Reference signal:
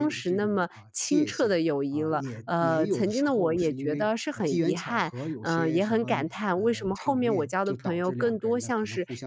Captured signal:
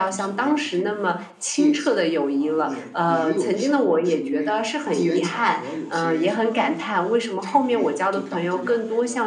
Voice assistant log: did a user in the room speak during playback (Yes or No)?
No